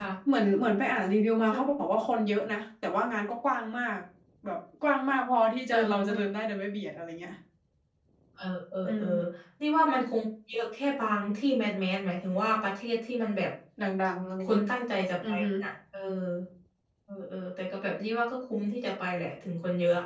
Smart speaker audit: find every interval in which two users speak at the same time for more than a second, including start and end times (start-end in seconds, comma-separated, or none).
none